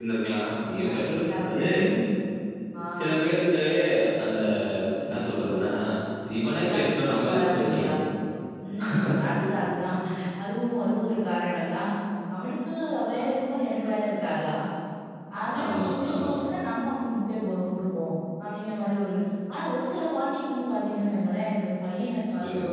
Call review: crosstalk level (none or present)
present